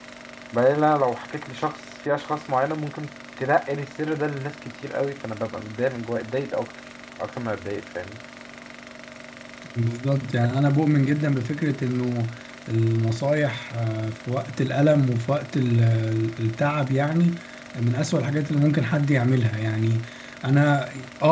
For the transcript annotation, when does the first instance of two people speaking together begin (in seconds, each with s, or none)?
none